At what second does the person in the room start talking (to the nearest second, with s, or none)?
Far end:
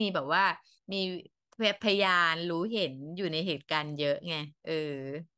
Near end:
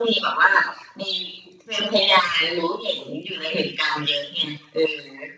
none